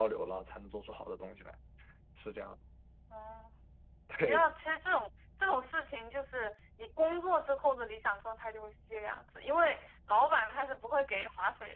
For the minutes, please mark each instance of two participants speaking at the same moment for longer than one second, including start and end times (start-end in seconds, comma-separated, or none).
none